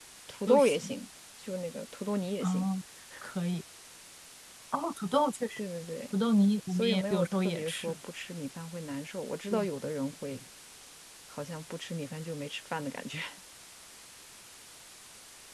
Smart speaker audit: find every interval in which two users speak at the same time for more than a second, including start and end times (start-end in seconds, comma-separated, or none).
6.7-7.9